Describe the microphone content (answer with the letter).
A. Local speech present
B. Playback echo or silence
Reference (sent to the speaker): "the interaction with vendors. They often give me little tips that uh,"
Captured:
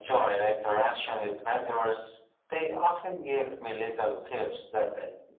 B